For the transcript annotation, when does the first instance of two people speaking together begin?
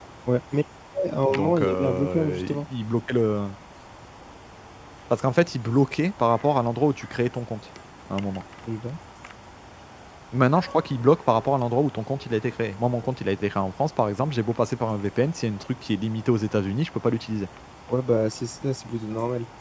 1.3 s

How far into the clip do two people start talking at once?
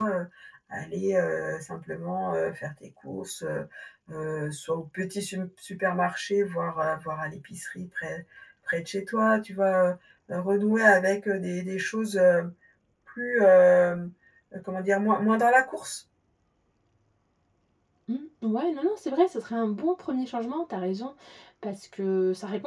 none

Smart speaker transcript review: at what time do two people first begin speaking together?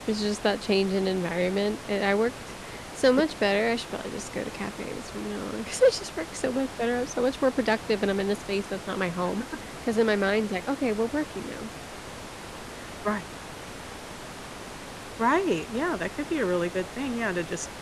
none

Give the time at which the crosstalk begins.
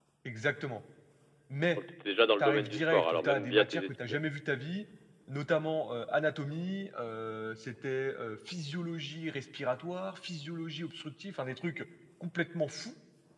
2.4 s

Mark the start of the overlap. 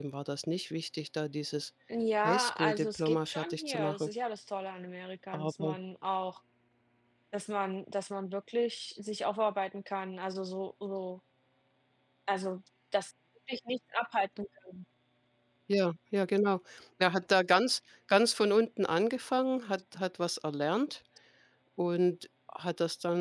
2.2 s

